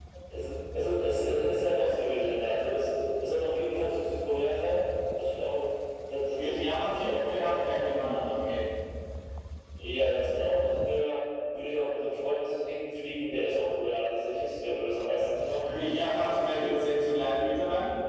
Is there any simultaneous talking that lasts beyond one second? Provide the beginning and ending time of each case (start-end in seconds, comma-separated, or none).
6.4-7.9